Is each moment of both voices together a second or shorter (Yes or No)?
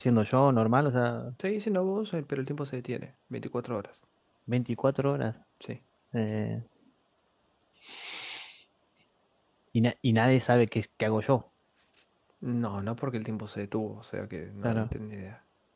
Yes